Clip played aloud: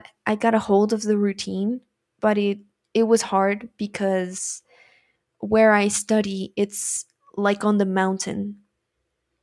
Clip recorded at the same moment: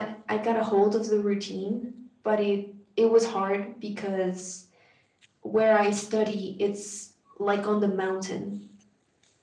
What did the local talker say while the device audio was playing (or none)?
none